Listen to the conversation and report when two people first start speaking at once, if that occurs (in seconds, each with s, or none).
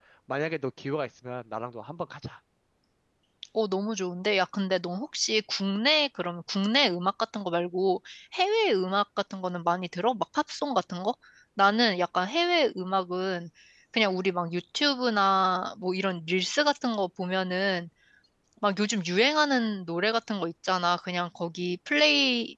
none